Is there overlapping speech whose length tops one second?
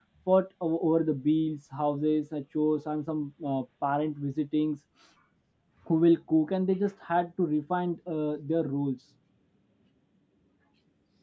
No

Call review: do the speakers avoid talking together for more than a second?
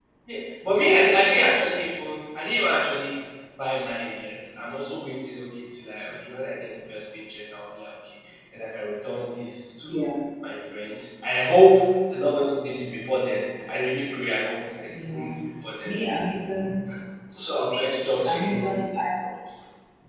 Yes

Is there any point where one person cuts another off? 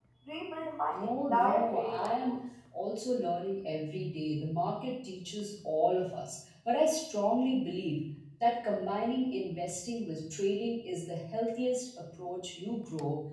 Yes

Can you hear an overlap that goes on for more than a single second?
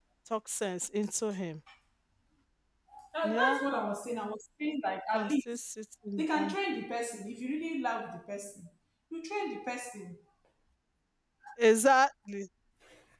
No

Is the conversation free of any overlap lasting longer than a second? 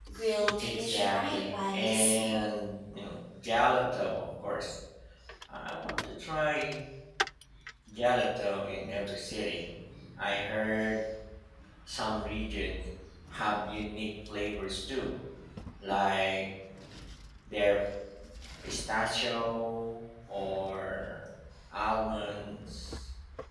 No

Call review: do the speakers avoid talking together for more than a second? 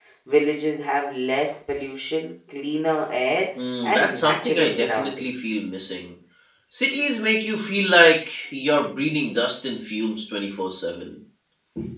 No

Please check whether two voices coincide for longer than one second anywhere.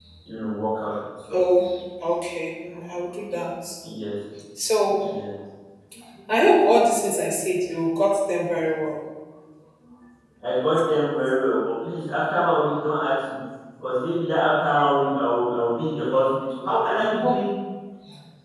No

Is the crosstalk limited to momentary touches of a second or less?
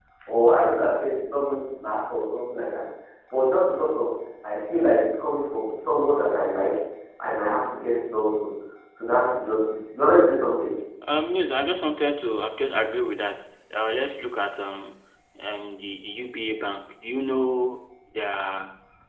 Yes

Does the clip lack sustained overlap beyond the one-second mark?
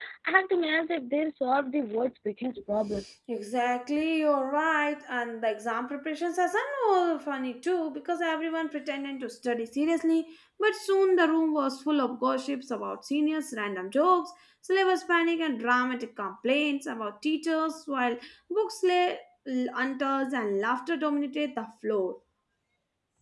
Yes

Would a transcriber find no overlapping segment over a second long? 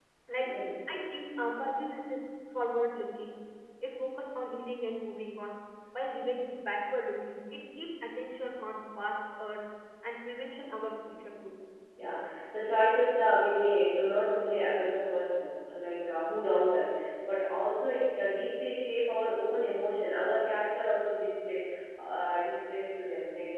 Yes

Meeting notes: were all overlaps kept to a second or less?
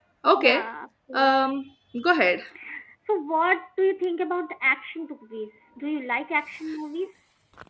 Yes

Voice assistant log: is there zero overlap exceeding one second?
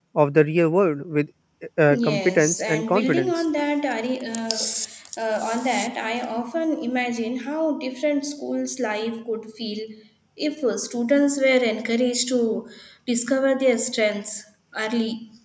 No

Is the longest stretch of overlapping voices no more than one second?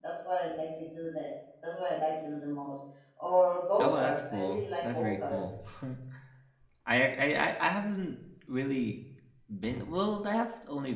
No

